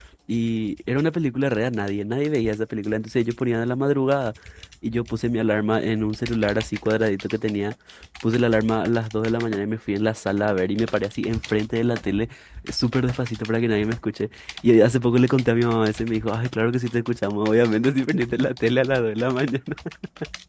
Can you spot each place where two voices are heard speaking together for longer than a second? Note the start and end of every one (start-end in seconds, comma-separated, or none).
none